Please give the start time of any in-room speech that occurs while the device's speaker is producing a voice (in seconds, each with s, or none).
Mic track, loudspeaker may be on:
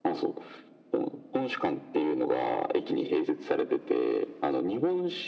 none